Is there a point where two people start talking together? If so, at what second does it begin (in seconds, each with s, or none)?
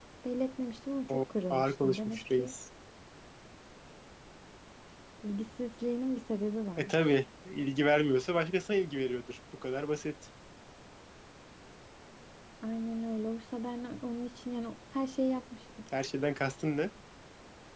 1.1 s